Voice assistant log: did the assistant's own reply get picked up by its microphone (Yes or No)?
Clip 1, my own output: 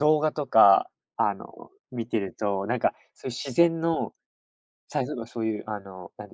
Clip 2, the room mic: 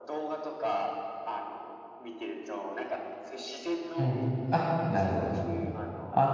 Yes